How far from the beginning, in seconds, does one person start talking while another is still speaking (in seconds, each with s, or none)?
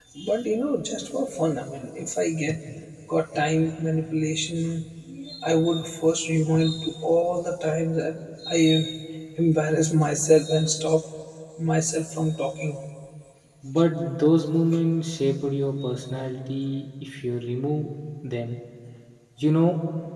none